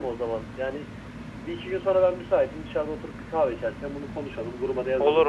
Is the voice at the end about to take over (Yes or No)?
No